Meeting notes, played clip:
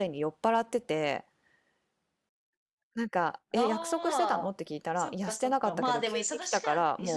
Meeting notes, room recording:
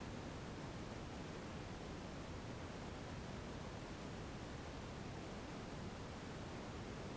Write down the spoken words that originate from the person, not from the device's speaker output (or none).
none